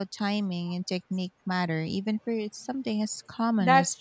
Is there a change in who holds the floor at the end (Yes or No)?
Yes